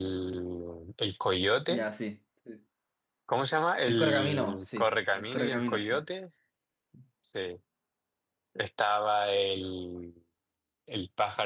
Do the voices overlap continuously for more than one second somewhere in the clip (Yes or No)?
Yes